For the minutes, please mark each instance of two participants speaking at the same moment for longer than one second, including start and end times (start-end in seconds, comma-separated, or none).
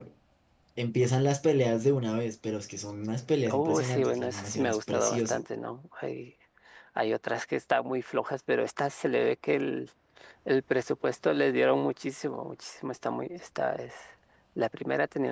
3.5-5.4